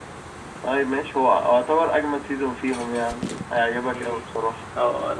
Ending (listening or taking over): taking over